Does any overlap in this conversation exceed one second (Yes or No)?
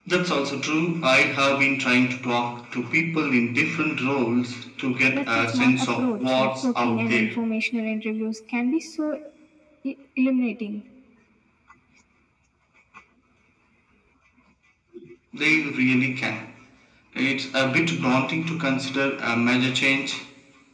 Yes